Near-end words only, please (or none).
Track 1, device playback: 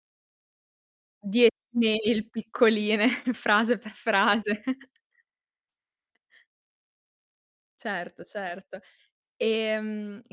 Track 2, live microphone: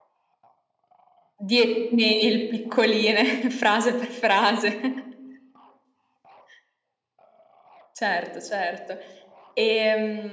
none